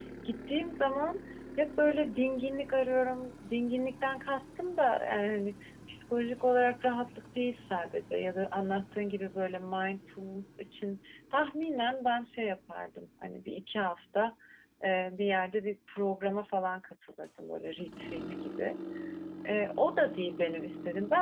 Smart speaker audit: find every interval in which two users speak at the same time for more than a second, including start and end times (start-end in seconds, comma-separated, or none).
none